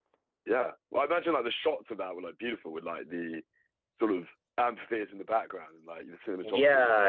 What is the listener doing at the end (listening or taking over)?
taking over